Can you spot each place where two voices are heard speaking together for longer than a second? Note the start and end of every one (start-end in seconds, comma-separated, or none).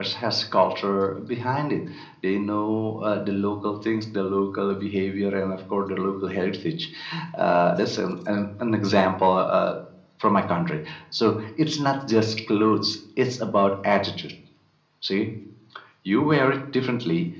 none